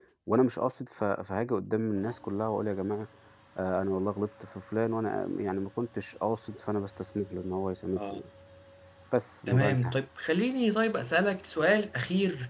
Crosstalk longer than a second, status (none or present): none